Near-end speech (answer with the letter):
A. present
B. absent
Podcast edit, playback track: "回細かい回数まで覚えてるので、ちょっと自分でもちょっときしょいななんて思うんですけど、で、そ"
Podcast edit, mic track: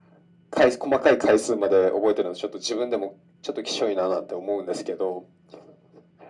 B